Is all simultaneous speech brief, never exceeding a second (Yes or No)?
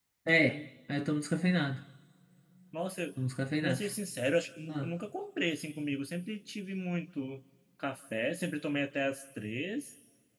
Yes